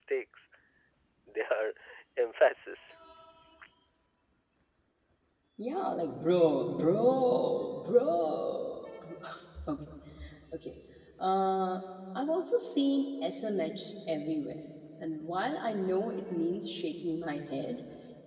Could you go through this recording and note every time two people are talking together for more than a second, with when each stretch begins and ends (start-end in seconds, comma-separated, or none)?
none